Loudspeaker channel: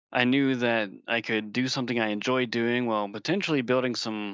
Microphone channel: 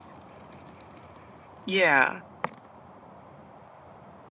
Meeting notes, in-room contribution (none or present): present